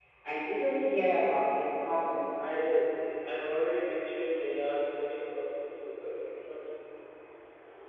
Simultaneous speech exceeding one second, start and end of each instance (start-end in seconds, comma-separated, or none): none